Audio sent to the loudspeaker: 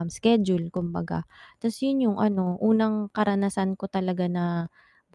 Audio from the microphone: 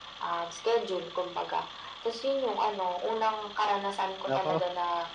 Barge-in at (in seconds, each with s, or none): 4.2 s